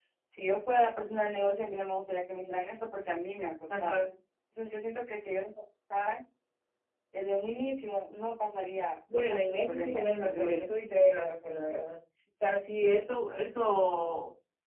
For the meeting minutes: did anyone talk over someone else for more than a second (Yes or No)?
Yes